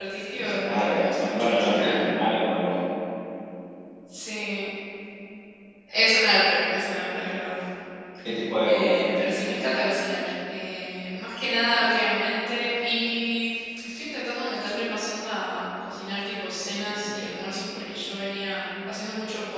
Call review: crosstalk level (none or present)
present